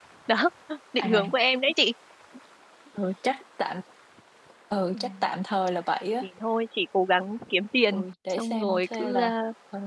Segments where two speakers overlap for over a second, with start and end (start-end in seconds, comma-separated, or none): 7.9-9.3